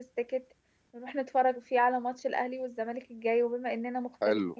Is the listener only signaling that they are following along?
Yes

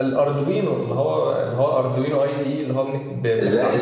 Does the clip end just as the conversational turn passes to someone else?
Yes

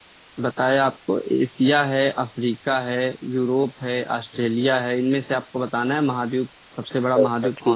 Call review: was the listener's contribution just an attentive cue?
No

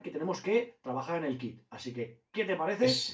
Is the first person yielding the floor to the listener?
No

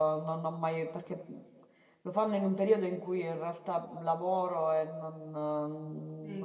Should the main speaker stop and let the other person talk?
Yes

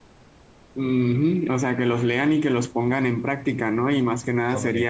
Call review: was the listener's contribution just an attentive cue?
Yes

